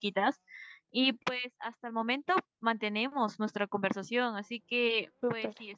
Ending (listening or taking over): listening